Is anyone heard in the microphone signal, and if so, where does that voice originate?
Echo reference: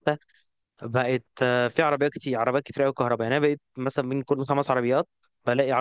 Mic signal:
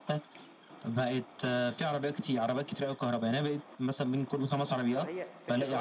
both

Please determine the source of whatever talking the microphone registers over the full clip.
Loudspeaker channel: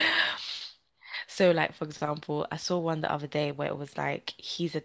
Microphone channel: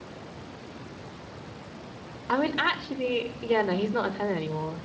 user only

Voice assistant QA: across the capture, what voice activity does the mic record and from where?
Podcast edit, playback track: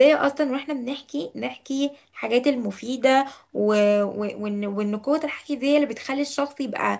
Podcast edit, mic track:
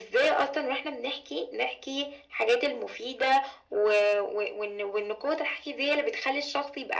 echo only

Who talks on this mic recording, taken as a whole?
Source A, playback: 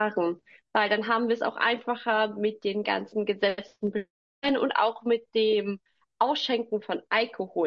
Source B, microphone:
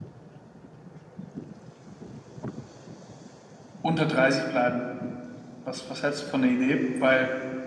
user only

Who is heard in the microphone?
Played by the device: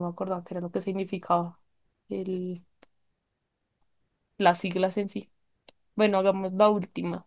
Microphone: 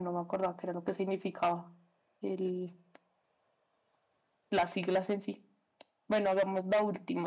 echo only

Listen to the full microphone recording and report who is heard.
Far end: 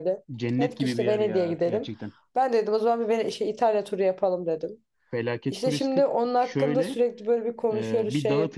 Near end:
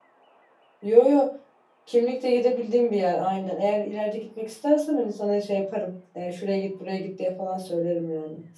user only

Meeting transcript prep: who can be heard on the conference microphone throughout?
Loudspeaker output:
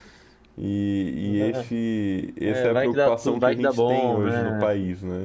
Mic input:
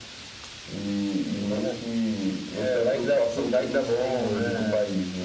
echo only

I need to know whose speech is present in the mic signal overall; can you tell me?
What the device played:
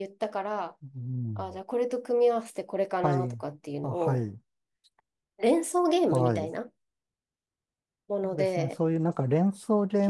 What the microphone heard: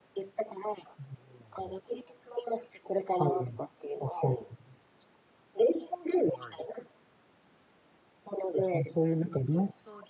echo only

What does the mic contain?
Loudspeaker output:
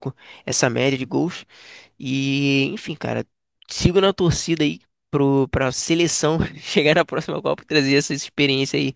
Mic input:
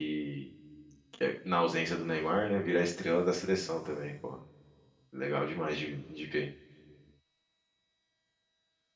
user only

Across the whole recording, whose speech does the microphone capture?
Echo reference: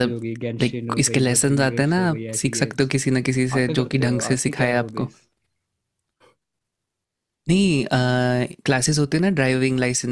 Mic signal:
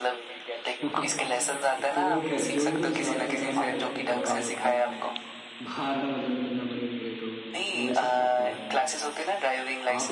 both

